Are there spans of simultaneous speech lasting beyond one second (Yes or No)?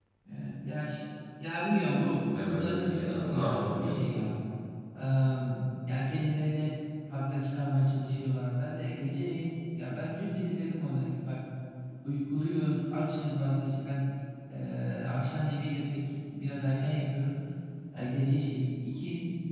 Yes